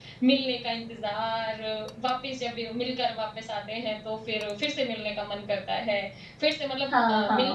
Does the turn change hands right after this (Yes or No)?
No